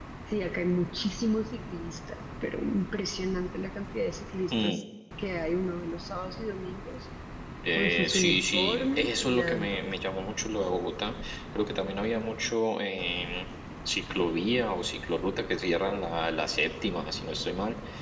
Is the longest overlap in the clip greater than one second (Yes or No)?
Yes